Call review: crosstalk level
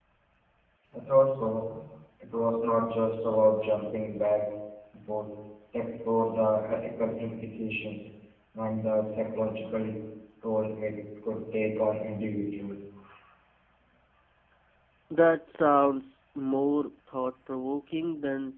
none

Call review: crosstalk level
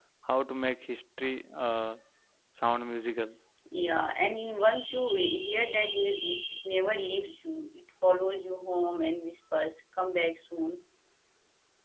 none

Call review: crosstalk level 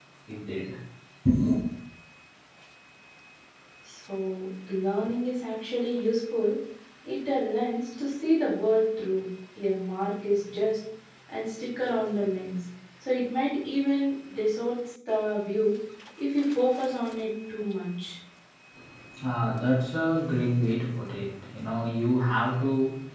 none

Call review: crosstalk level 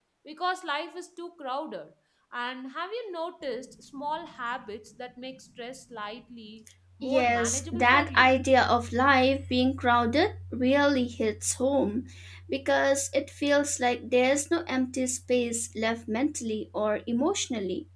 present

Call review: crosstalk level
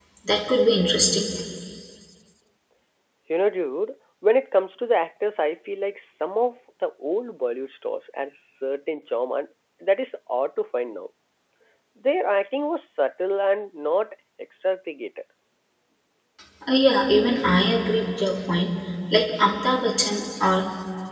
none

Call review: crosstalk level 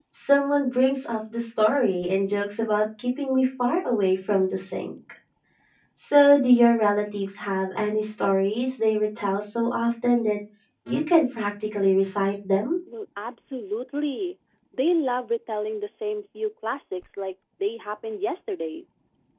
none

